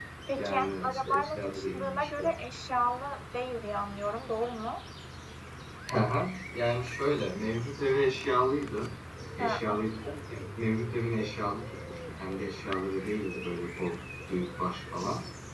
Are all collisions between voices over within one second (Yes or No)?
No